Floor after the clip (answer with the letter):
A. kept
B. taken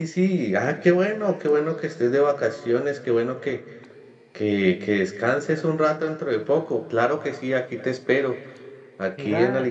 A